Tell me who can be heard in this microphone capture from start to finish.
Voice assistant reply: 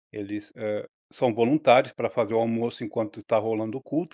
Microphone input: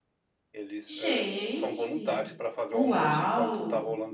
both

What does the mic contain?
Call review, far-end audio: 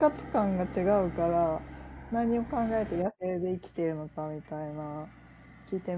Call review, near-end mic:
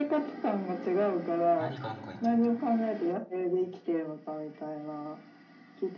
both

